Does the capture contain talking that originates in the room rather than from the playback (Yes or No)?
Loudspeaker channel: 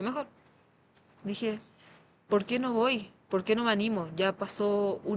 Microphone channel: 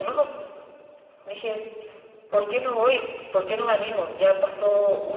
No